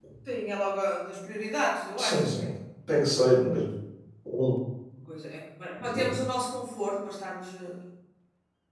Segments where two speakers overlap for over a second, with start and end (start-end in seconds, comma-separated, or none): none